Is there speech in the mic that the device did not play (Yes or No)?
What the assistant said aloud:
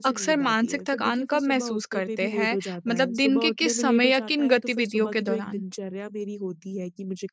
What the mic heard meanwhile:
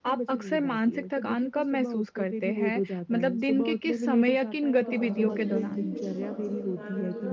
Yes